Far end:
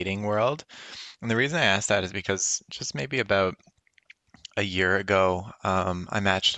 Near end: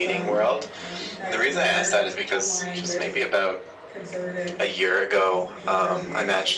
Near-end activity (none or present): present